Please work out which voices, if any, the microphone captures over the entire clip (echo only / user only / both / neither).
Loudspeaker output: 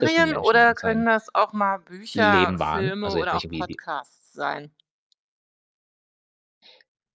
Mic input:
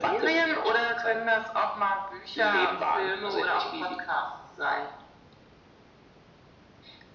echo only